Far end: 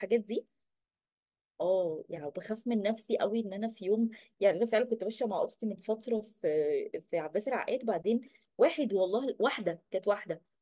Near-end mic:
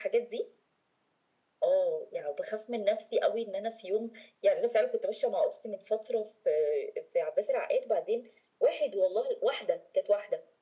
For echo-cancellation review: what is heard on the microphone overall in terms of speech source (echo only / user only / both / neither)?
echo only